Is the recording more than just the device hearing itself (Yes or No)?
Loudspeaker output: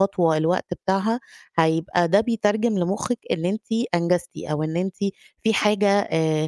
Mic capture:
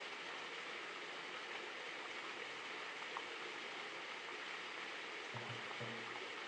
No